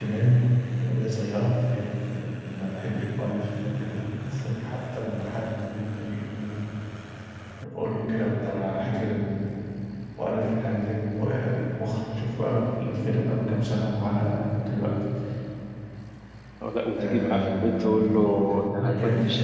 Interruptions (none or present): present